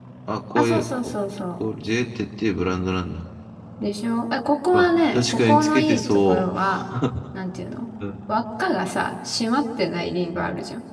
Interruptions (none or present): present